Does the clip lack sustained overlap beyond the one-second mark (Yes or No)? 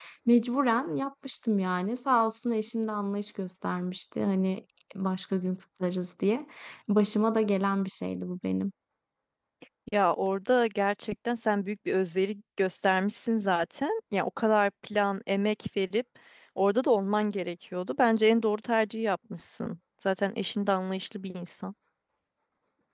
Yes